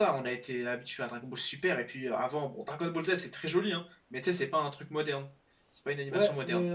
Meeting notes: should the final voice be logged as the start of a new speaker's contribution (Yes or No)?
Yes